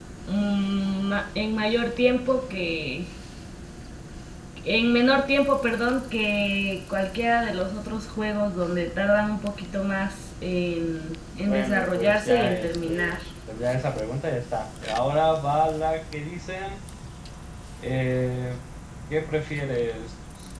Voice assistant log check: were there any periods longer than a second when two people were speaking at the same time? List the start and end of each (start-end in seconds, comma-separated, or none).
11.5-13.2